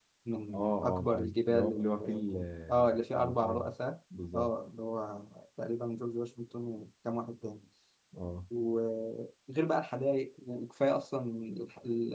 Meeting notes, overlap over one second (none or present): present